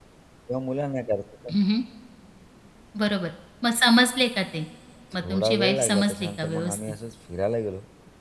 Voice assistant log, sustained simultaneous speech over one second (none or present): present